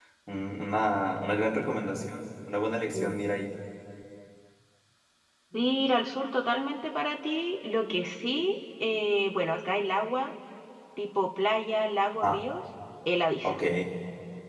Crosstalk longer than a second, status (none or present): none